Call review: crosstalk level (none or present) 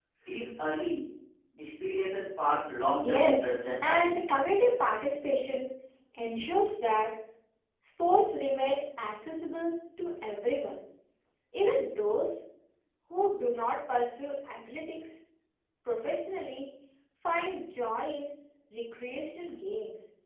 present